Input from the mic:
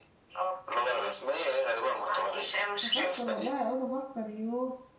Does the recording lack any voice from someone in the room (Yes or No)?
No